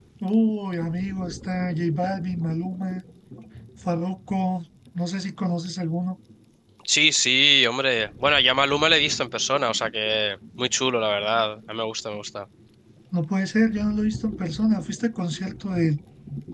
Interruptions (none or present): none